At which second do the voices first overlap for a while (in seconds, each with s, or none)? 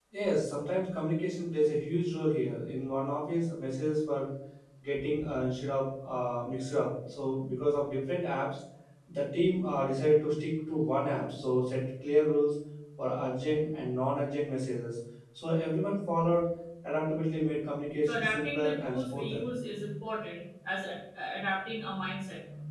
18.0 s